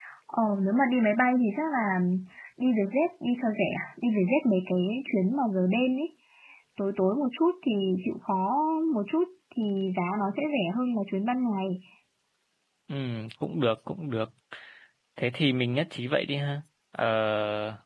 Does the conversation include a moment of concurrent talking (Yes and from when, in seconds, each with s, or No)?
No